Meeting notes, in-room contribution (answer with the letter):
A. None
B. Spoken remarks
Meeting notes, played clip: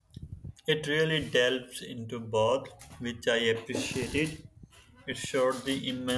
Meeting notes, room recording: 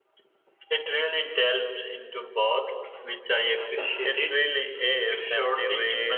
B